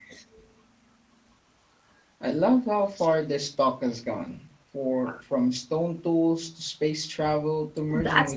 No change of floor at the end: No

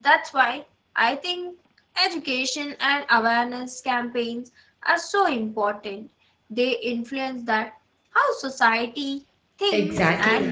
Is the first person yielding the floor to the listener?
Yes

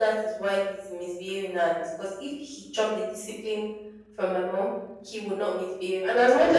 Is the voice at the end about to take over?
No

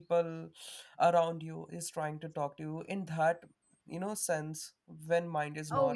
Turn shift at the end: Yes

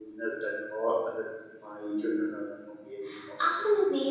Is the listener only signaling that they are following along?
No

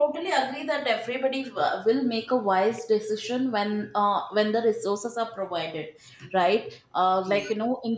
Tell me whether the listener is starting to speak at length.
No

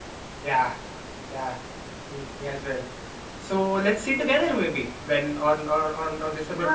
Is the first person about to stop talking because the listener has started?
Yes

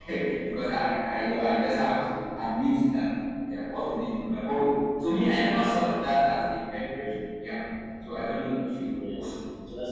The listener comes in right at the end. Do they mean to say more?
Yes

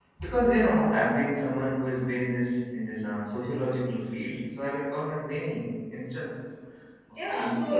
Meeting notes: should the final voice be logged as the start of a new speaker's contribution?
Yes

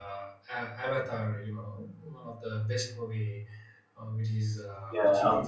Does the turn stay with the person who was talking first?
No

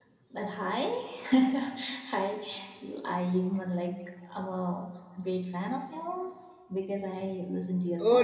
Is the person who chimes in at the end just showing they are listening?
No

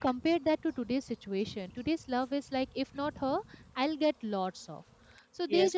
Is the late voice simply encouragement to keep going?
No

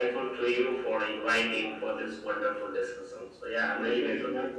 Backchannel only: No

